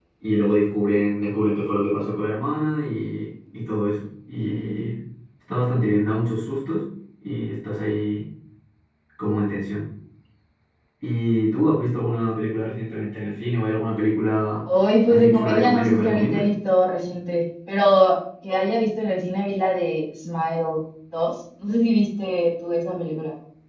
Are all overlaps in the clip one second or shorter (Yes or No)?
No